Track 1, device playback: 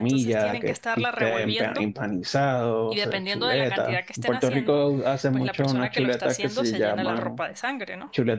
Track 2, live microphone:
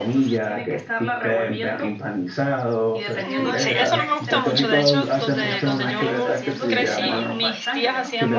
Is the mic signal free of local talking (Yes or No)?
No